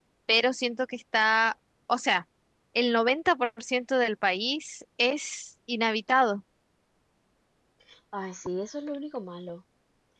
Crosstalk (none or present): none